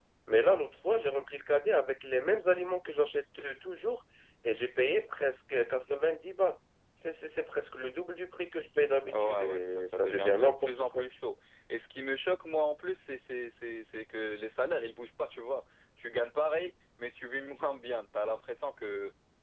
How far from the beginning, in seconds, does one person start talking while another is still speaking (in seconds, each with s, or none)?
9.0 s